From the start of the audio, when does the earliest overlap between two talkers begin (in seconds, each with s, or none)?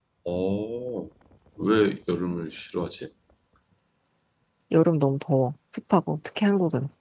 none